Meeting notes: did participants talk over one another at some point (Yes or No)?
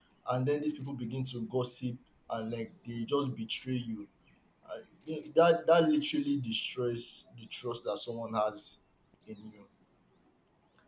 No